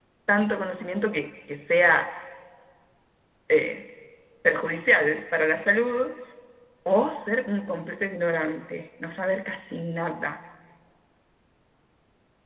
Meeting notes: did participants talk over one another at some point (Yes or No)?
No